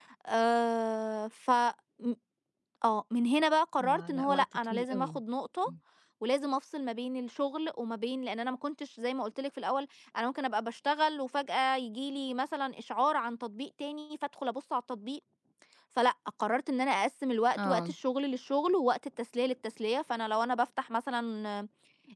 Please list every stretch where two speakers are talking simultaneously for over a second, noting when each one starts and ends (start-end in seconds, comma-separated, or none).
3.9-5.2